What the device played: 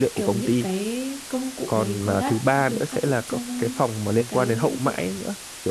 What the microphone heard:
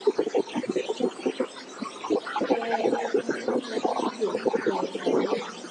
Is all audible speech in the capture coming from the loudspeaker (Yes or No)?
No